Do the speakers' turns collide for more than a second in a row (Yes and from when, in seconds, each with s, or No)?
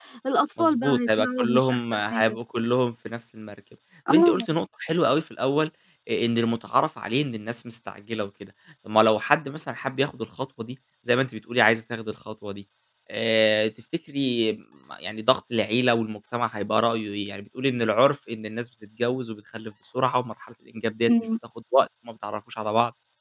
Yes, from 0.6 s